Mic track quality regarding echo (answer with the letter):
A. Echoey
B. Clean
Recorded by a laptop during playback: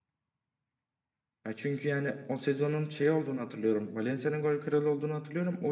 B